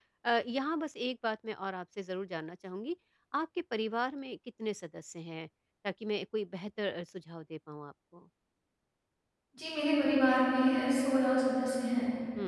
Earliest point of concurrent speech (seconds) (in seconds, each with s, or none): none